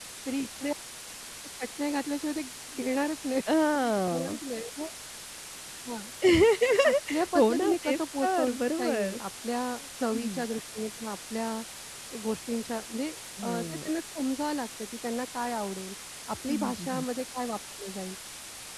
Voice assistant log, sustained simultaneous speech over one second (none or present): present